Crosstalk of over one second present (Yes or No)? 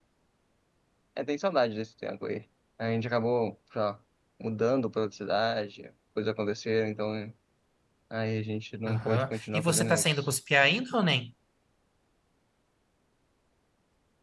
Yes